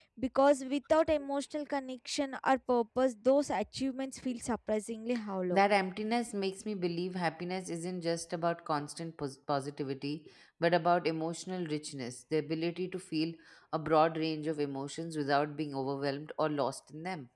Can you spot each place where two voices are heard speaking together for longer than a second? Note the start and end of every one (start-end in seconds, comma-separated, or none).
none